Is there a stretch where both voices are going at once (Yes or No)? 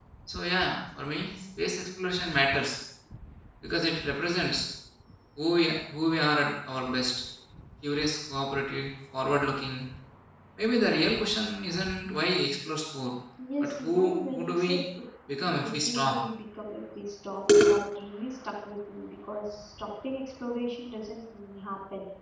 Yes